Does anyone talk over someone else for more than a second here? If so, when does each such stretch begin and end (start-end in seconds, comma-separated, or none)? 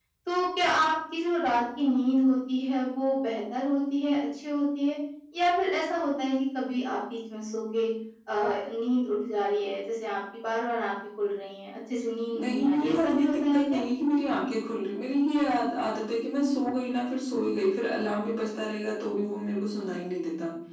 12.3-13.8